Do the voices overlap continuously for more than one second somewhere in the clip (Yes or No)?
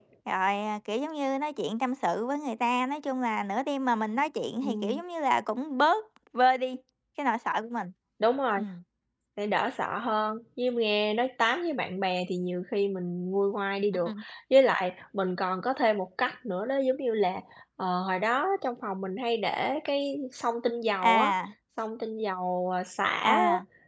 No